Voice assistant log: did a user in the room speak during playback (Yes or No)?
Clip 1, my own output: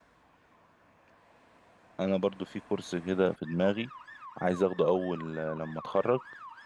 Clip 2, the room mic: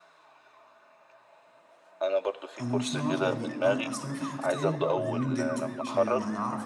Yes